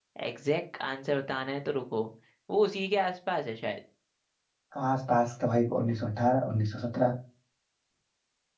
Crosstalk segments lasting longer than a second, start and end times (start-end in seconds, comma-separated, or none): none